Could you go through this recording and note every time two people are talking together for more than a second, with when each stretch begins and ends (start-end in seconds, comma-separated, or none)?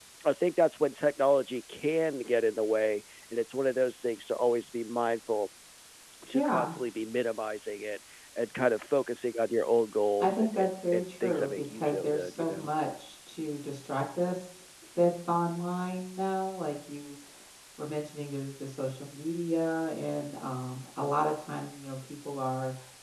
10.2-12.7